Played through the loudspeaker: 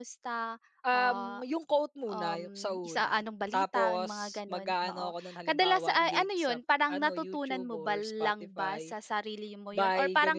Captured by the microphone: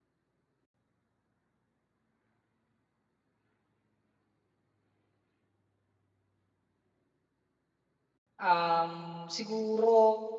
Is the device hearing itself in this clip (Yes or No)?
No